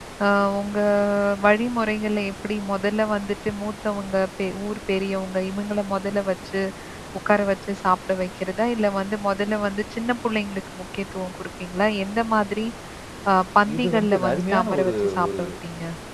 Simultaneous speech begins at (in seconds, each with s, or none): 13.8 s